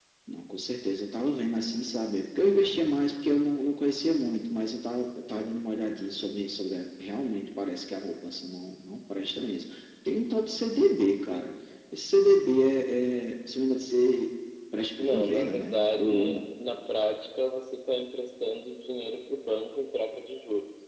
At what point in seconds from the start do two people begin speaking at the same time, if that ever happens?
15.0 s

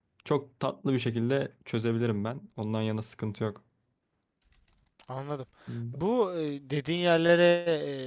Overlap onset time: none

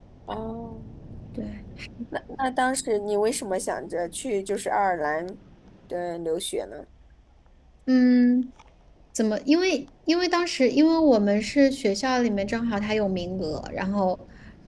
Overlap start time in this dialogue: none

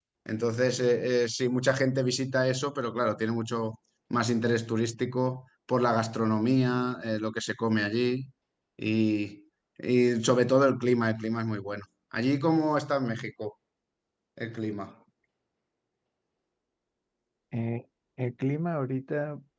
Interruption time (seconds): none

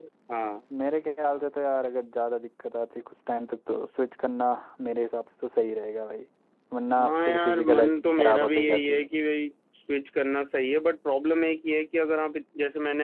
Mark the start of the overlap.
7.0 s

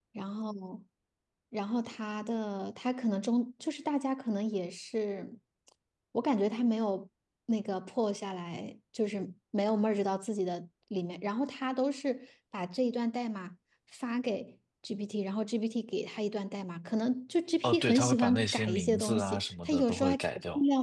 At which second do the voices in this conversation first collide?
17.6 s

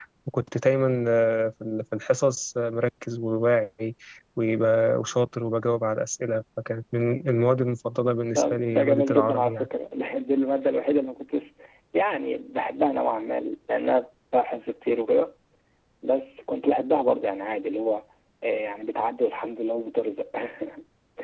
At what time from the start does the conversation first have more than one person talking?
8.3 s

